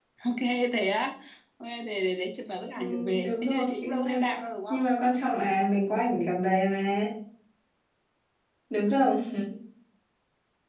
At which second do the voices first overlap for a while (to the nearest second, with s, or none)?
3 s